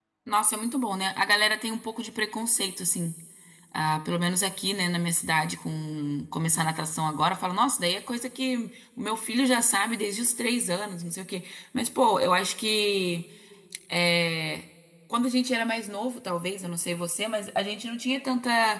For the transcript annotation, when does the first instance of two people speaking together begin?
none

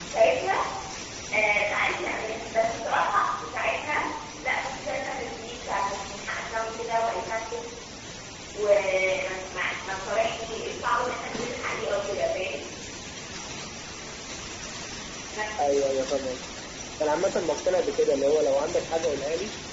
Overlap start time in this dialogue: none

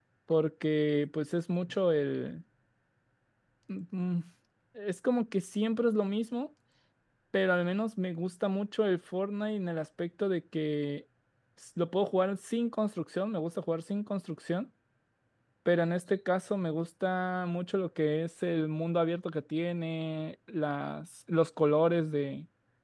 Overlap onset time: none

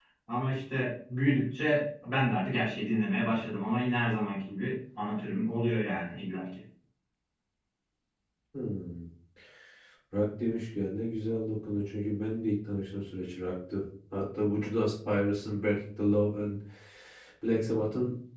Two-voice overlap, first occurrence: none

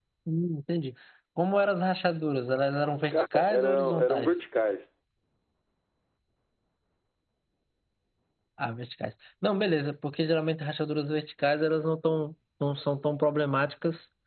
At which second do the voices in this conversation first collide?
3.1 s

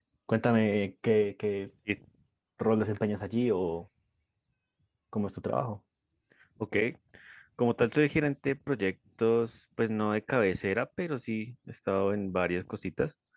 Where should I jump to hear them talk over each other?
none

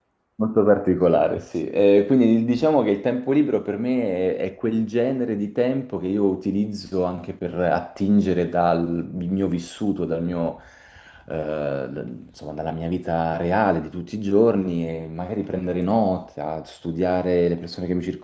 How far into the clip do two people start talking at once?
none

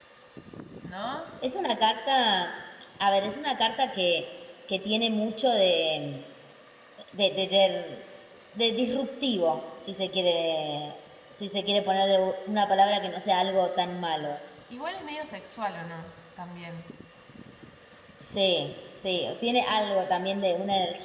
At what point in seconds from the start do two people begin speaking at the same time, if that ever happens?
none

